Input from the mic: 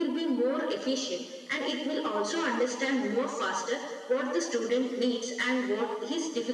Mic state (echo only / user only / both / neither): echo only